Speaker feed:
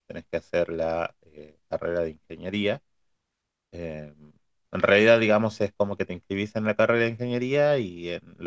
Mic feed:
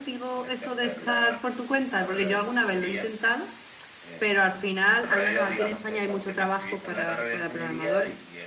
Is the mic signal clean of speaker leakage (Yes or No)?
No